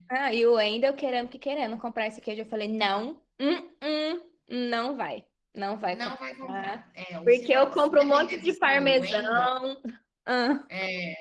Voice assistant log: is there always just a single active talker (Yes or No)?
No